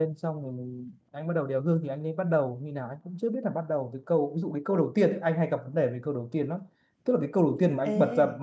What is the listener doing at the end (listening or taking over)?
listening